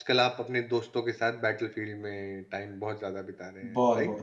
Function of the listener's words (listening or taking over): taking over